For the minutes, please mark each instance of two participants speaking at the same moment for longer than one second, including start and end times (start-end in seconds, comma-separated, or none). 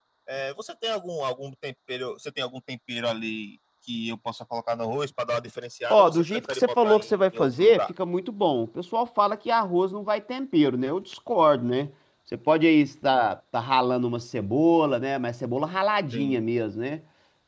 5.9-7.8